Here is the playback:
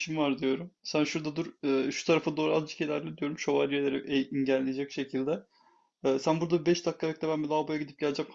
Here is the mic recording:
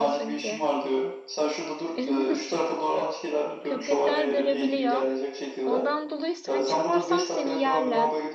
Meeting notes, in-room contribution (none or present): present